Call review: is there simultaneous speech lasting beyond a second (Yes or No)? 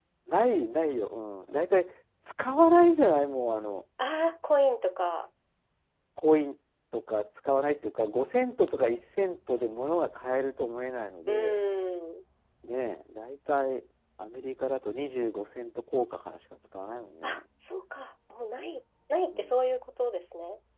No